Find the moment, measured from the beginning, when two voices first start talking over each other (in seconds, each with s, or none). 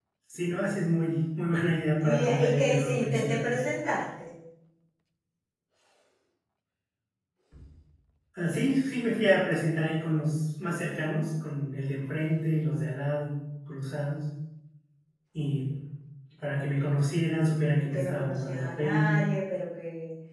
2.0 s